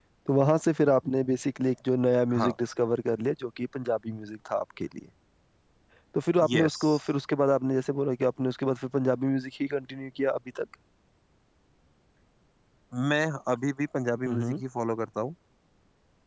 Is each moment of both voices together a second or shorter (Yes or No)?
Yes